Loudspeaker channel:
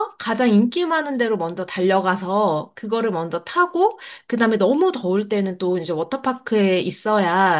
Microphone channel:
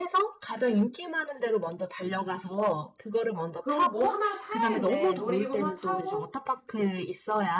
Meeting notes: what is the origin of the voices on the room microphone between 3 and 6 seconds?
both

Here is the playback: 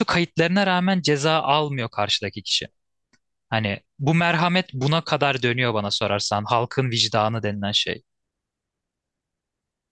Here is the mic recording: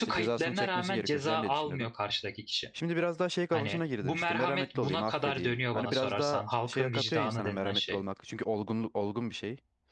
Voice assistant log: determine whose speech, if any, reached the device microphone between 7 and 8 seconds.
both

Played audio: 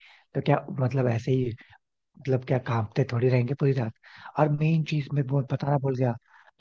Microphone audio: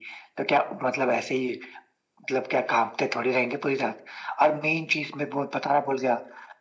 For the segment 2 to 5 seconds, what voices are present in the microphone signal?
echo only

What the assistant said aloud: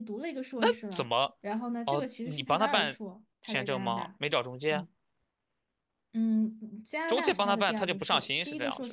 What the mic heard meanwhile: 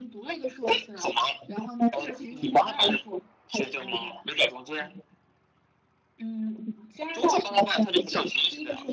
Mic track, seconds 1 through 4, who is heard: echo only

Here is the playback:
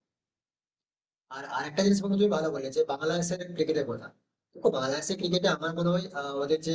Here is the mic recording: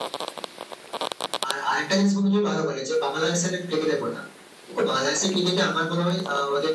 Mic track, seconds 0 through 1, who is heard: neither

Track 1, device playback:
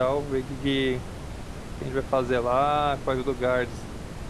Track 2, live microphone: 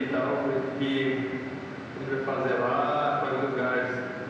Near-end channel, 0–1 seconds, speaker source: echo only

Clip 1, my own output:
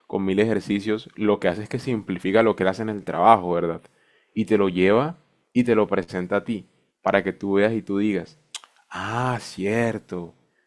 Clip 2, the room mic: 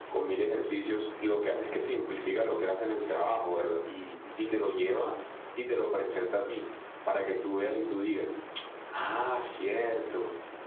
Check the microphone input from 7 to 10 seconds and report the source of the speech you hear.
echo only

